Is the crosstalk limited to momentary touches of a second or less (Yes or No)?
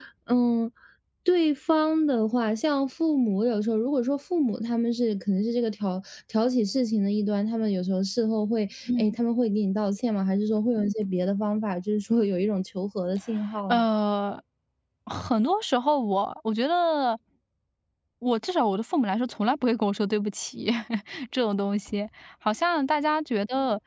Yes